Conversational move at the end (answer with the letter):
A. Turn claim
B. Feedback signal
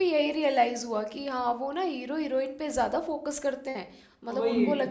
A